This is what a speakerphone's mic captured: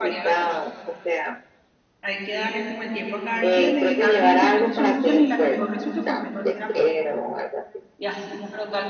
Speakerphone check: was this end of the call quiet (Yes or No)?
No